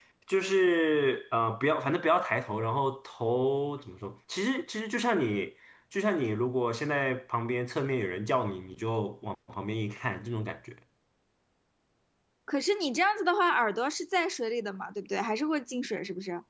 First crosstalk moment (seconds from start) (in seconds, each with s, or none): none